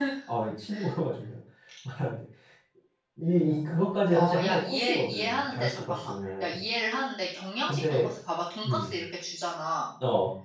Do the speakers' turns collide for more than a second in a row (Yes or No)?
Yes